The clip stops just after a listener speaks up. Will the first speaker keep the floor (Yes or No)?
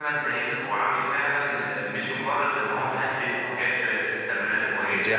No